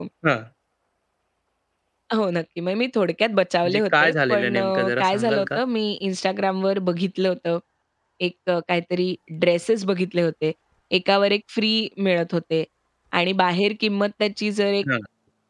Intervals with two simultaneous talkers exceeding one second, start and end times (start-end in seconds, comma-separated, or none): 3.6-5.6